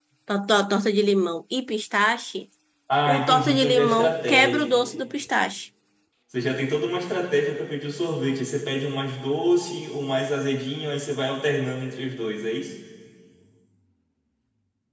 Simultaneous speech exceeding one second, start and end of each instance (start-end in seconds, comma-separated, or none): 3.1-5.0